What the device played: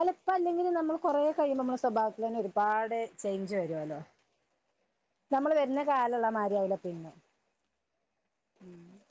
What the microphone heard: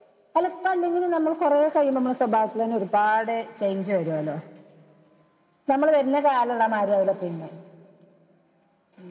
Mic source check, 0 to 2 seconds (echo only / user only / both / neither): echo only